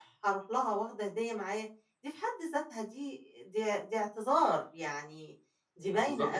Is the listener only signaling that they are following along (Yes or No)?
No